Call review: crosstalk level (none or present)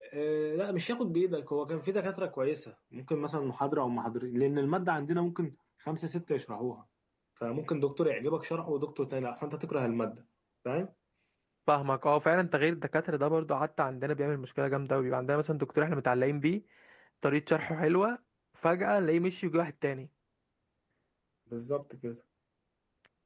none